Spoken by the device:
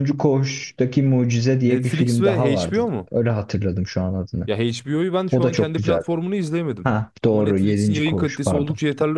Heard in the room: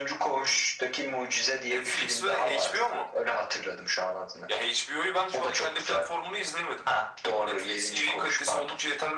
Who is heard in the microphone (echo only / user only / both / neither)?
echo only